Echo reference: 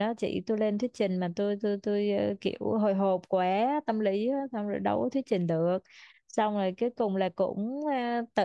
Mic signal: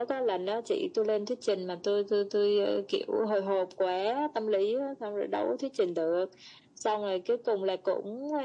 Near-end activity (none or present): none